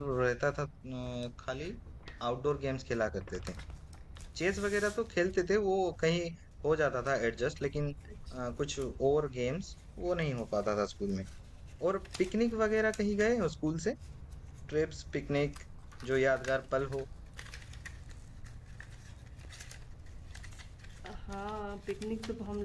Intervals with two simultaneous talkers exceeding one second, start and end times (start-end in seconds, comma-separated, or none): none